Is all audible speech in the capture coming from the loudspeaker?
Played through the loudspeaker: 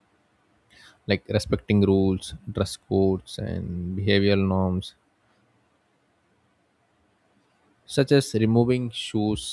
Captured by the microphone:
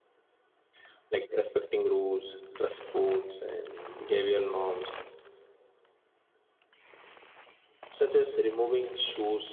Yes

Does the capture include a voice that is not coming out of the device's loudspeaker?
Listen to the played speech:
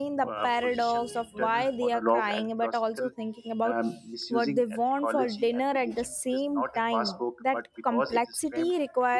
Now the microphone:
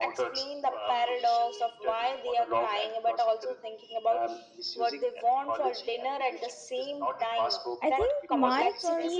Yes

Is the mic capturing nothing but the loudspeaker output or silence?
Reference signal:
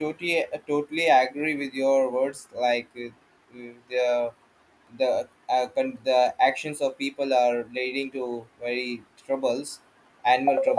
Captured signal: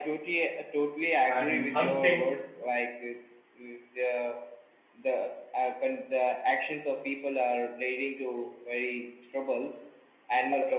No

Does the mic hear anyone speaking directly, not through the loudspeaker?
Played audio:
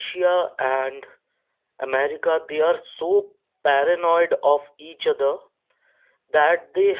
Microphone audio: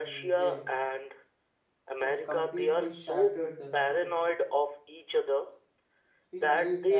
Yes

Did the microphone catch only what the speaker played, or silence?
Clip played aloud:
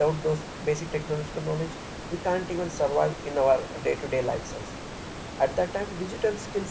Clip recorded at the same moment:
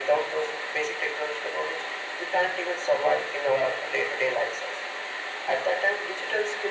Yes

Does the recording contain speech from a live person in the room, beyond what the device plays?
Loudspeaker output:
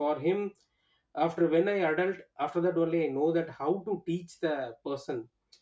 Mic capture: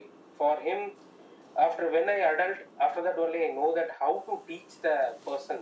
No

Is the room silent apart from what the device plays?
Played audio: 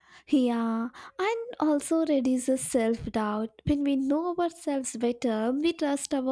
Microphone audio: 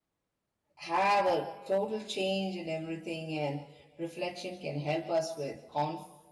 No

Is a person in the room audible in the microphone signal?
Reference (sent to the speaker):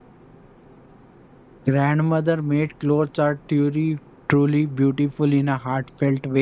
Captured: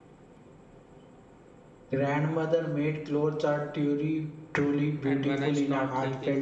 Yes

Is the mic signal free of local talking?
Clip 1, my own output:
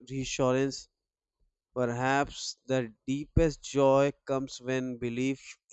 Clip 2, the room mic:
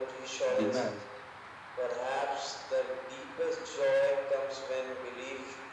No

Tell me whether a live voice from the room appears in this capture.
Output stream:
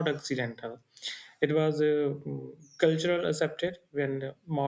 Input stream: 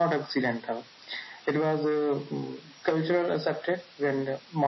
No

